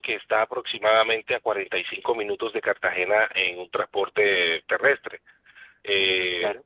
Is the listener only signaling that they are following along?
Yes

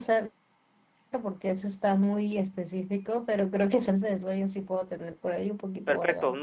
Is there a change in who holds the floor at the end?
Yes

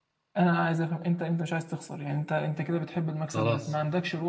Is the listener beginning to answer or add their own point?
No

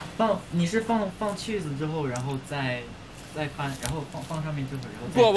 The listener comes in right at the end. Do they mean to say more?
Yes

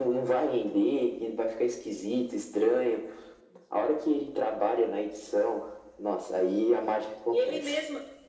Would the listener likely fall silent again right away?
No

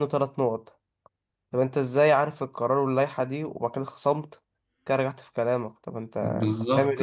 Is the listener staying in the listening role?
No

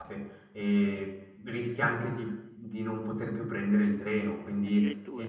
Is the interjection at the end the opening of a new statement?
Yes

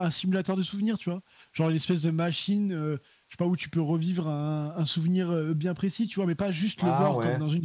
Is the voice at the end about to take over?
No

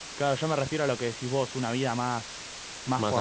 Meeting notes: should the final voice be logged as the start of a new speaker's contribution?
No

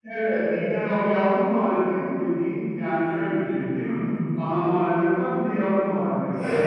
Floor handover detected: Yes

